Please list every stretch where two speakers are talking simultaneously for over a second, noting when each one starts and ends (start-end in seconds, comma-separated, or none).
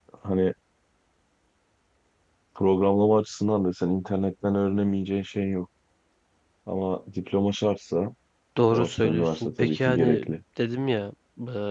8.7-10.3